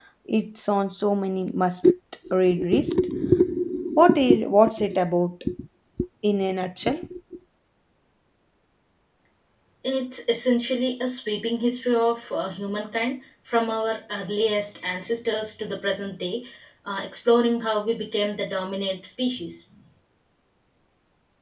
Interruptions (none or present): none